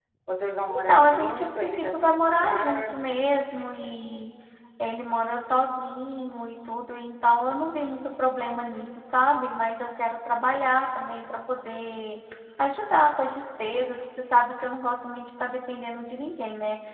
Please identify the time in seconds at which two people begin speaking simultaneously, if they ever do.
0.7 s

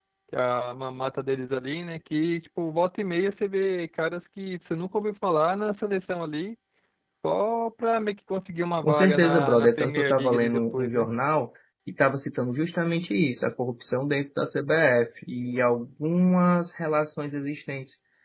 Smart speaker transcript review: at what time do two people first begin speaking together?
8.8 s

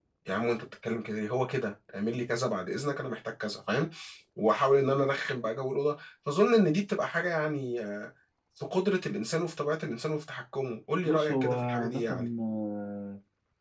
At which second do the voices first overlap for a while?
11.0 s

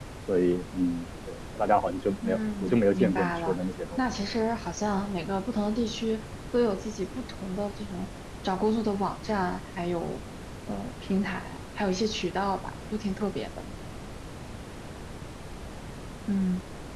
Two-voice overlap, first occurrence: 2.2 s

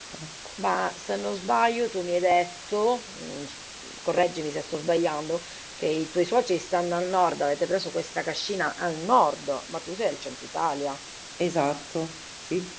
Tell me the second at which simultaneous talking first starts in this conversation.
none

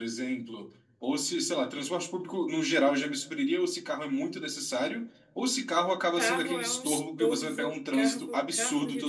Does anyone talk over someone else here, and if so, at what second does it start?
6.2 s

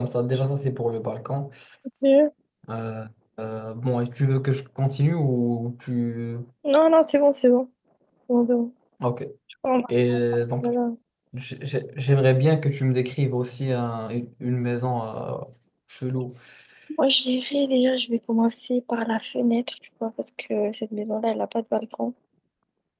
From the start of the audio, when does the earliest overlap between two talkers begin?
none

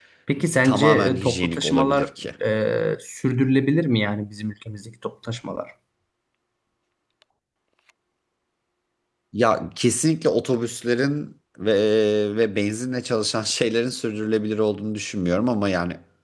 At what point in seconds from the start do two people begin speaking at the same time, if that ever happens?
0.6 s

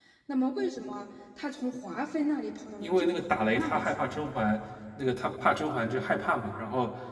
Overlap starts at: 2.8 s

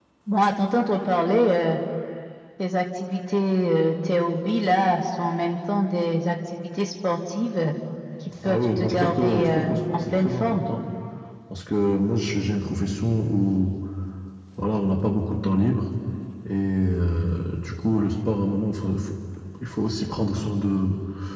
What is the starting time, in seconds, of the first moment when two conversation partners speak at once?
8.4 s

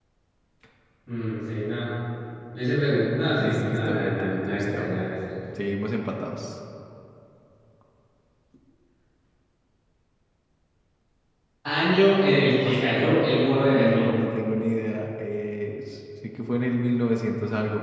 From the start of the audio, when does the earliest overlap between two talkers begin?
3.4 s

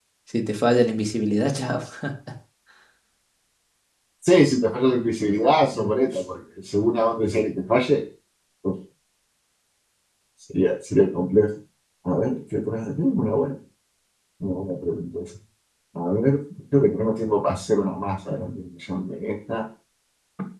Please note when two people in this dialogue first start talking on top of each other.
none

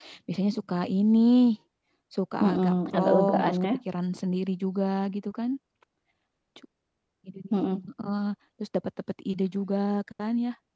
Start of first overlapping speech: 2.4 s

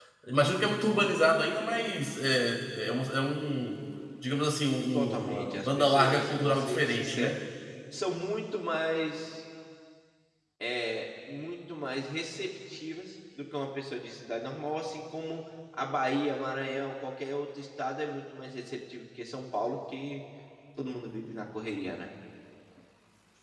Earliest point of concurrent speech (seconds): 4.9 s

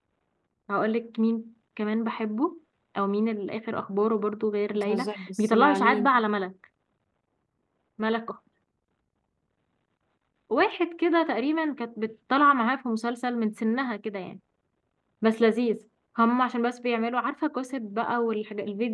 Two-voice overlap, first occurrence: 4.7 s

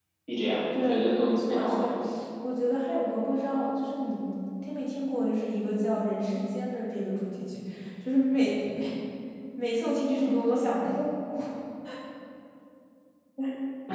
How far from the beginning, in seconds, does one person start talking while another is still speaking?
0.7 s

